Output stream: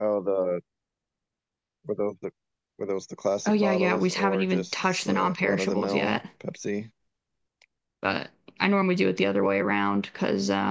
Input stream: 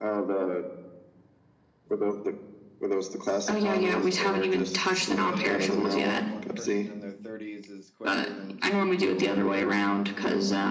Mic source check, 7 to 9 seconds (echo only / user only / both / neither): both